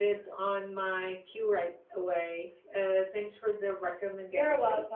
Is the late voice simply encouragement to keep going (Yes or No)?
No